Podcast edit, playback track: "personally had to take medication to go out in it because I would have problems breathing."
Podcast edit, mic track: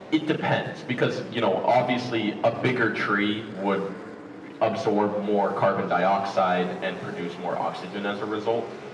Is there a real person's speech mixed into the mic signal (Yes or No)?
Yes